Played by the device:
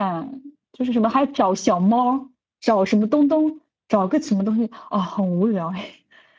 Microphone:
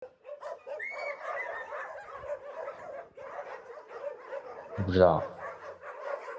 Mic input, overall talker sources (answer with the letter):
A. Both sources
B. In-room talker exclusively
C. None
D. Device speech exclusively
B